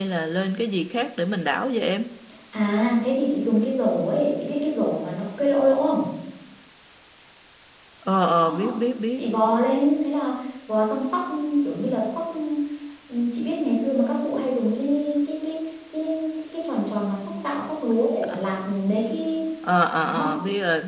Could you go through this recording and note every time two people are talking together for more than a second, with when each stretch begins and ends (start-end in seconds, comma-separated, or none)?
none